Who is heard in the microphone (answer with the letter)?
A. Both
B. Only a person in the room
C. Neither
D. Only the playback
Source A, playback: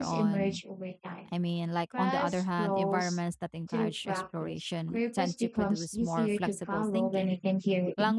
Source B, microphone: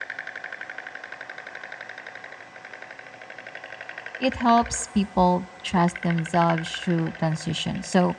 B